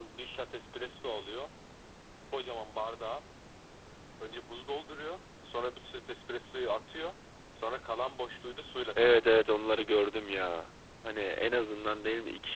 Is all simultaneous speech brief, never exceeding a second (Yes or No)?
Yes